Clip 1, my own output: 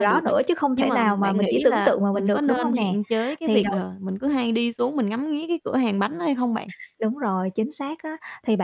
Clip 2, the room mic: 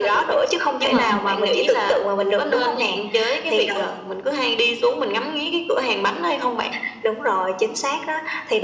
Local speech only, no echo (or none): Ừ, ừm.